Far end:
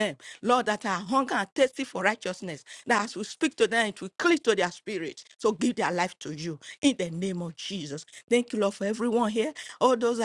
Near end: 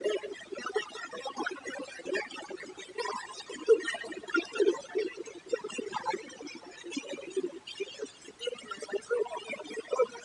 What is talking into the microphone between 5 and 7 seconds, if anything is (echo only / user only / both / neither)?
echo only